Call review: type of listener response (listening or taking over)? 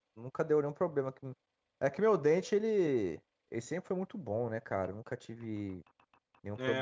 taking over